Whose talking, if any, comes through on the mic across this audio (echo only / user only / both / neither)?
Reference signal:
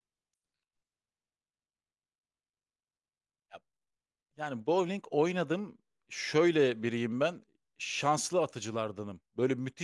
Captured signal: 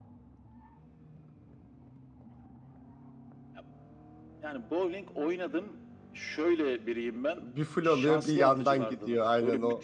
both